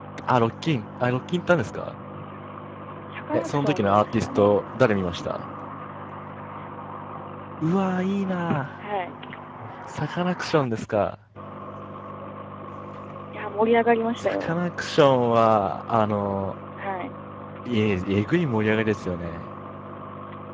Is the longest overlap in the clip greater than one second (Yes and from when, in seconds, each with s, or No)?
Yes, from 3.3 s